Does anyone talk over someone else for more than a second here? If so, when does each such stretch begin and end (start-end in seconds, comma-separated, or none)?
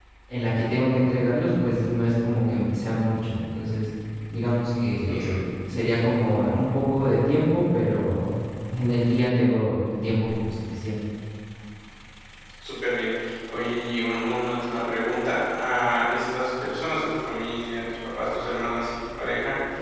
none